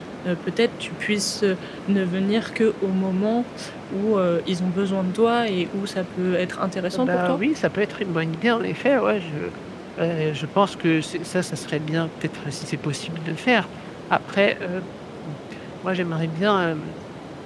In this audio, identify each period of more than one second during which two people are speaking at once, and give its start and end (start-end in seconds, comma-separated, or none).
none